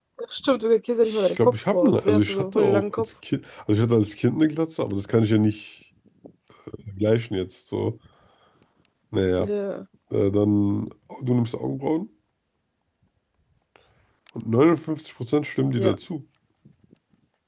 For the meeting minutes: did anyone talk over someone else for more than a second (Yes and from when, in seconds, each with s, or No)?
Yes, from 1.0 s